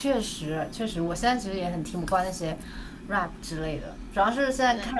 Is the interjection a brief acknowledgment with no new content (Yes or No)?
Yes